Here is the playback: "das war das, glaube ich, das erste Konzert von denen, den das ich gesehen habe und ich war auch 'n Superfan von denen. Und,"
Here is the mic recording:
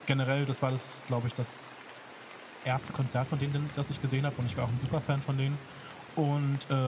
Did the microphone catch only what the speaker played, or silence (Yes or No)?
Yes